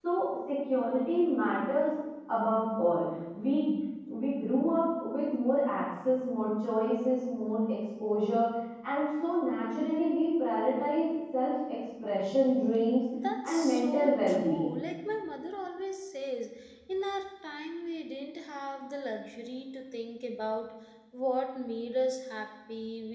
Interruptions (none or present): present